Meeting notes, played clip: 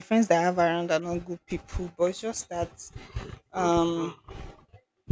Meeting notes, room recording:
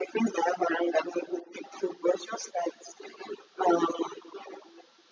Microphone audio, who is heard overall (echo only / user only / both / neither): echo only